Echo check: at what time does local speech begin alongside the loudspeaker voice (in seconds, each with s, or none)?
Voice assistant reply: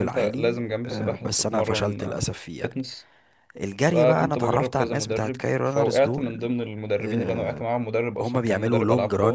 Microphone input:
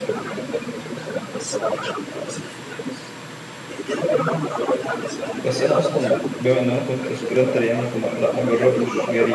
5.4 s